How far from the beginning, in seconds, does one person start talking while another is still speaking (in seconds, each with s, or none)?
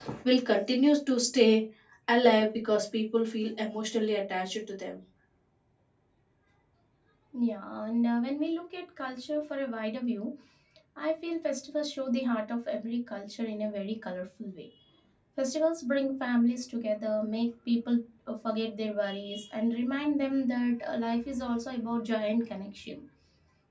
none